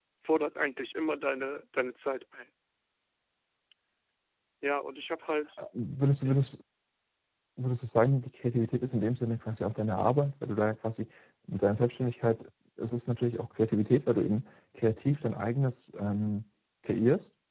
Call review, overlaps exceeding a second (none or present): none